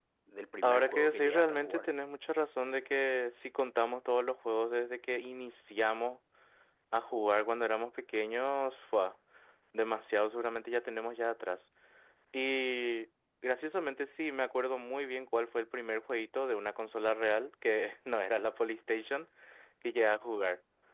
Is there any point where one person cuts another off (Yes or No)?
Yes